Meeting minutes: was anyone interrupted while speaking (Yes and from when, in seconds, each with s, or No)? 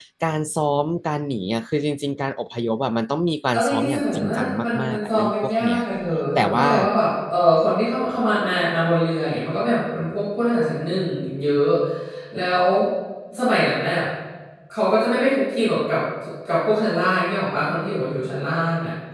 Yes, from 3.5 s